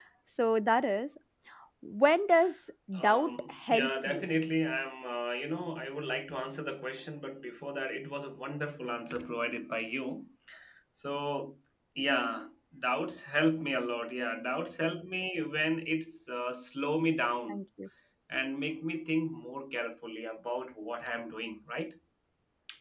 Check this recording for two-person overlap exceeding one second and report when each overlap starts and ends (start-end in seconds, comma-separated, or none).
3.0-4.3